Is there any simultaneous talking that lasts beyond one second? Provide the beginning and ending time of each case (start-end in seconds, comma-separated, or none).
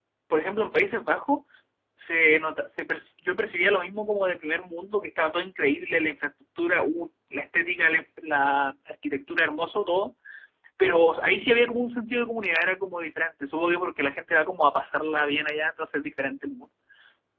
none